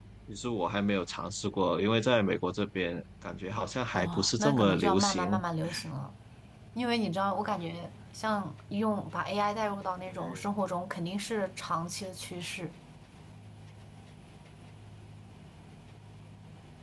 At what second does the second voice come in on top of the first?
3.9 s

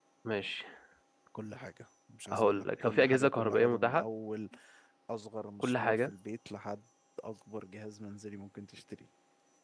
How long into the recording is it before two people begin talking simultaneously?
2.3 s

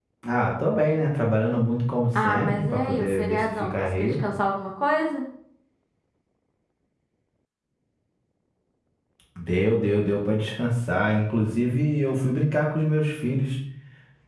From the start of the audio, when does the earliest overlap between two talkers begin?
2.2 s

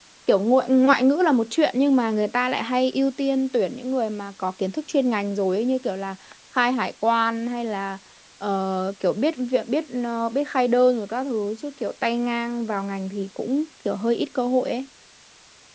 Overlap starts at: none

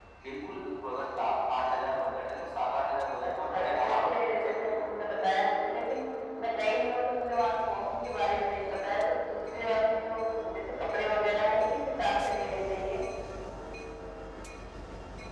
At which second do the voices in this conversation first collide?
3.2 s

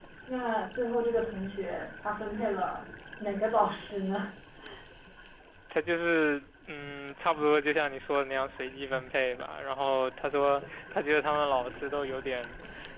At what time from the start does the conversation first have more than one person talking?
none

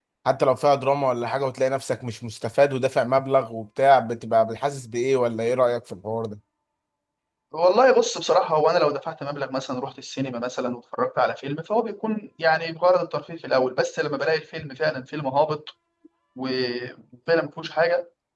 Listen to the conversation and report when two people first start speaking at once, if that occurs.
none

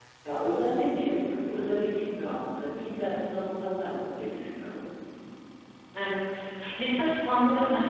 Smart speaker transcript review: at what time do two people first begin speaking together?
none

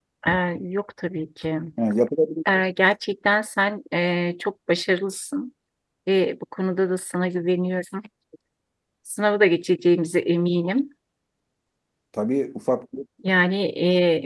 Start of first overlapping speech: none

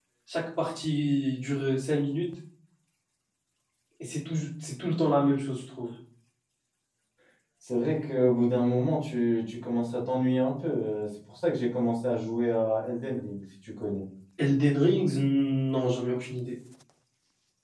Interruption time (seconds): none

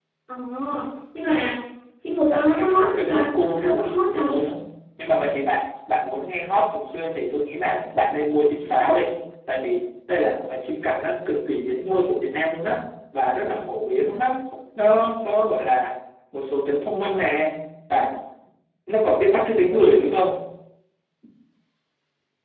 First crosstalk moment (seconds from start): 2.3 s

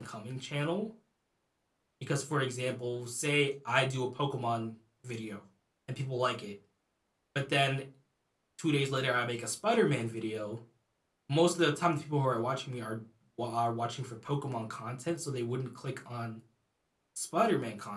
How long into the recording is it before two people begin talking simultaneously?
none

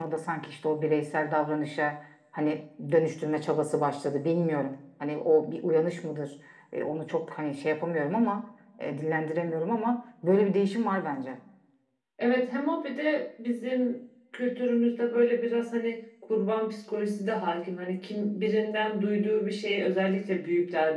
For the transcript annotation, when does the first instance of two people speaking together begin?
none

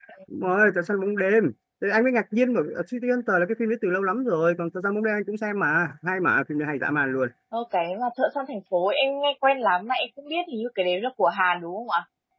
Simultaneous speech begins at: none

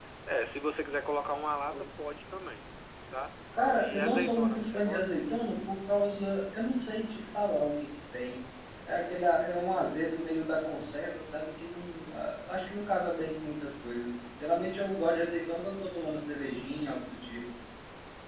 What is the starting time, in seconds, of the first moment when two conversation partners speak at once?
3.8 s

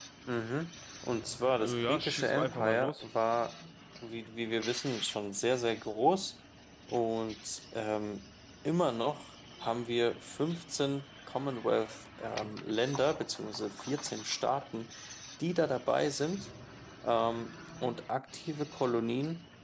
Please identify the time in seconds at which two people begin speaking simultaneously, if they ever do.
1.6 s

